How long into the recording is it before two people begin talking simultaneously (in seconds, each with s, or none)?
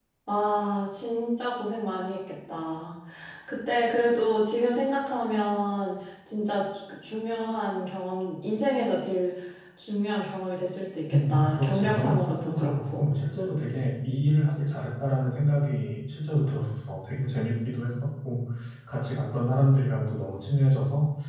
11.1 s